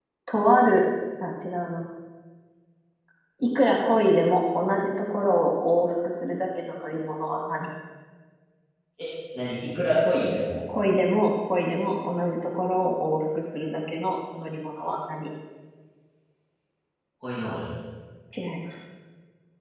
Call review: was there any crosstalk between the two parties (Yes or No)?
No